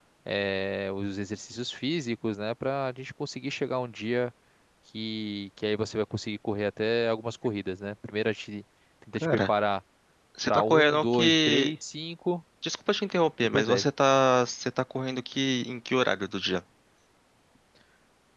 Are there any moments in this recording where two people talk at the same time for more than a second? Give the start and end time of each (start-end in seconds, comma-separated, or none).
10.5-11.7